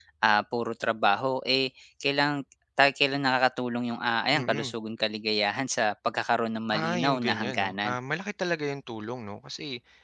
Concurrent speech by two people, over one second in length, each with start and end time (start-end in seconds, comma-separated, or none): 6.7-7.9